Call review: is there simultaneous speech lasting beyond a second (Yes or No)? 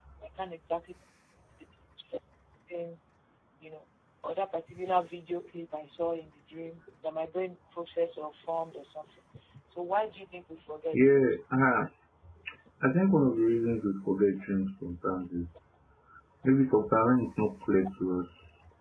No